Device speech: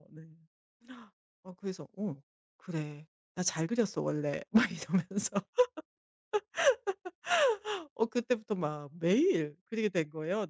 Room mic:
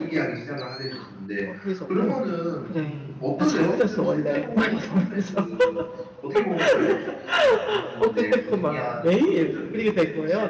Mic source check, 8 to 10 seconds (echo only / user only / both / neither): both